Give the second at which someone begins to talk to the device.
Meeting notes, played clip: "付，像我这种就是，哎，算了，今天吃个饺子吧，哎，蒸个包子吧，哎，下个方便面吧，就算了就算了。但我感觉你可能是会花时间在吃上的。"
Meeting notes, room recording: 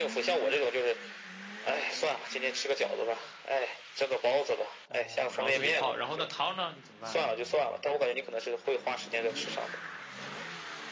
4.8 s

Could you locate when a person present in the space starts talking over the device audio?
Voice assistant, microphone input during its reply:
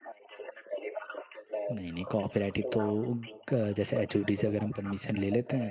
1.7 s

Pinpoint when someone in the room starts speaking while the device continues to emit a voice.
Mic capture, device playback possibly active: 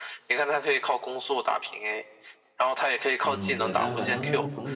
3.2 s

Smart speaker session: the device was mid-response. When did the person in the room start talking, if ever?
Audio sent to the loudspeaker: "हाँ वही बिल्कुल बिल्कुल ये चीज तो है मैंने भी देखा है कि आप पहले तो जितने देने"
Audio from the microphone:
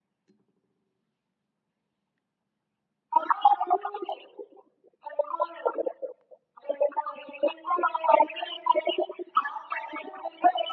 none

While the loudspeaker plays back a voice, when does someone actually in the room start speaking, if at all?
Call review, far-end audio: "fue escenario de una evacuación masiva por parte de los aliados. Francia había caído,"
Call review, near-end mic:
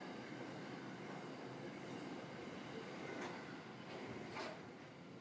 none

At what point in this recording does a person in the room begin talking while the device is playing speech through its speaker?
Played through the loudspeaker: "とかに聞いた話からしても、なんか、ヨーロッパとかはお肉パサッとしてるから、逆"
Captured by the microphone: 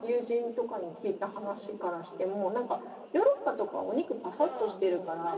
4.2 s

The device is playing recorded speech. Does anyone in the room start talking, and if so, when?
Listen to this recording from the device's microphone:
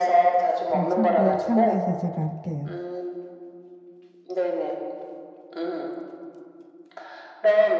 0.7 s

